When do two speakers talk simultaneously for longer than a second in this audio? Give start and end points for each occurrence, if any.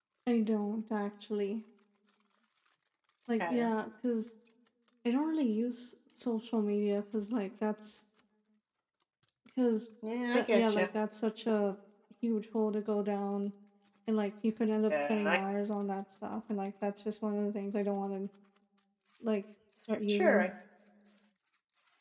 none

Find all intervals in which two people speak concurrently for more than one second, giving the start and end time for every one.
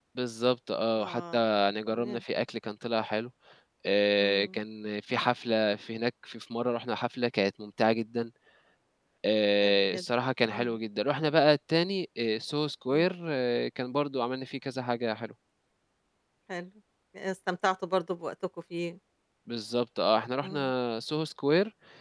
none

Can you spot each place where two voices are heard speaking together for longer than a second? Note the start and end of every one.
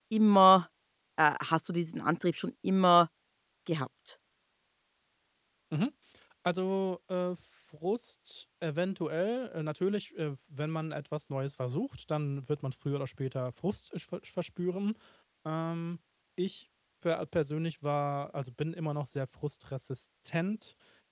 none

